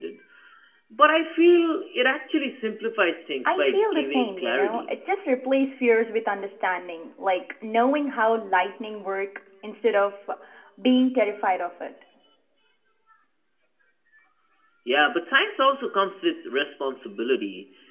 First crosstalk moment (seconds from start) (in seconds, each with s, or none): 3.5 s